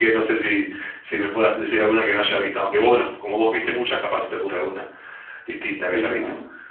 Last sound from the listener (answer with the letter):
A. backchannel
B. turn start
B